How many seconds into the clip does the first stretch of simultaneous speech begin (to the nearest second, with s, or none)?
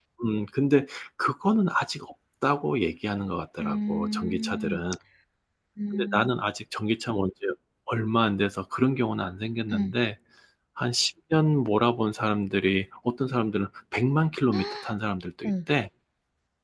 4 s